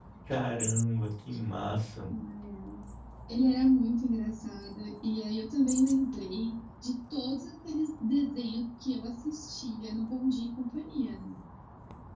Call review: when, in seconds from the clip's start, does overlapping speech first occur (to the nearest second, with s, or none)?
none